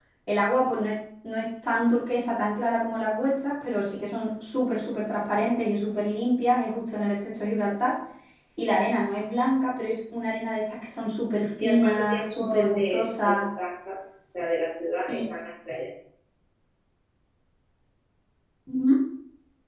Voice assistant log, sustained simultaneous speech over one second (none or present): present